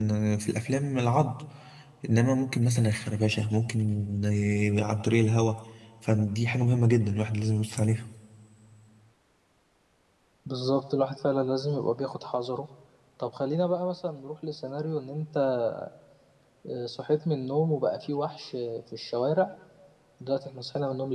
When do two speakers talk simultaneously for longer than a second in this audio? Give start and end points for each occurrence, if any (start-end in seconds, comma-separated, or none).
none